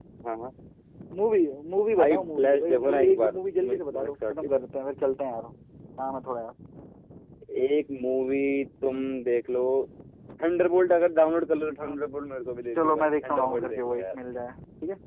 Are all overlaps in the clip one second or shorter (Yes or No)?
No